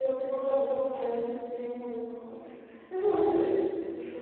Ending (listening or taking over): listening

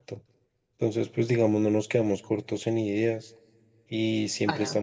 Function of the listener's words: listening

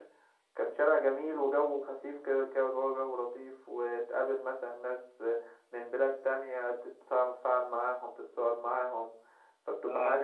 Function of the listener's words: listening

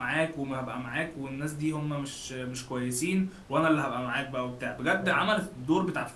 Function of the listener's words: listening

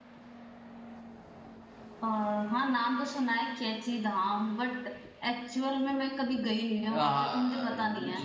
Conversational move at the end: taking over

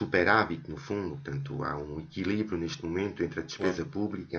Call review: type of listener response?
listening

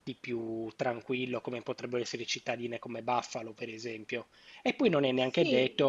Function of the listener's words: listening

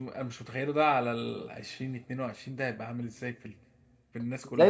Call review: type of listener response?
taking over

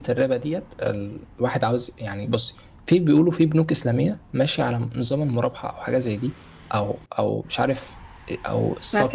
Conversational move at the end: listening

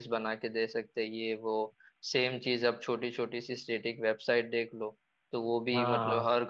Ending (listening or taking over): listening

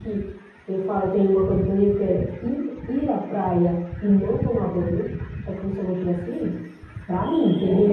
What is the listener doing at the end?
listening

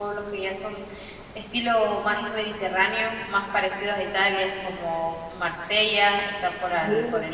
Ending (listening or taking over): listening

